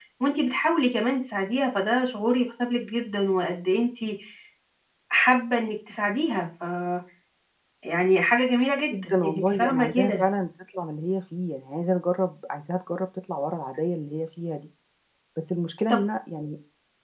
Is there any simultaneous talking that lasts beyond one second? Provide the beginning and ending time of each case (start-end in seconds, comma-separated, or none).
8.9-10.2